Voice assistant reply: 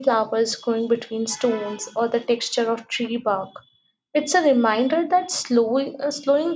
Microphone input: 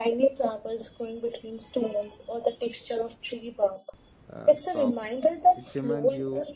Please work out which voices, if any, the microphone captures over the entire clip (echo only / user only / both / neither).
both